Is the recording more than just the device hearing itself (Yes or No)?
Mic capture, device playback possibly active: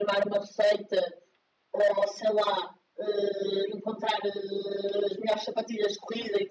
No